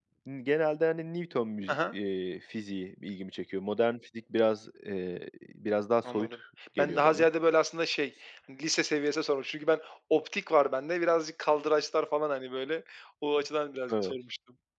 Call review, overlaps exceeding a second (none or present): none